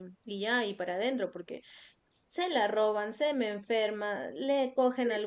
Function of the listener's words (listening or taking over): listening